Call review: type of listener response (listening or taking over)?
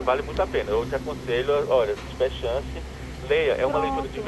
listening